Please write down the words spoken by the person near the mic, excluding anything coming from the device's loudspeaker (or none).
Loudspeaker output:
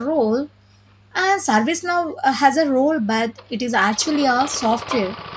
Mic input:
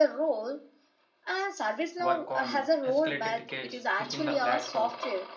work on uh, escalated tickets within the platform.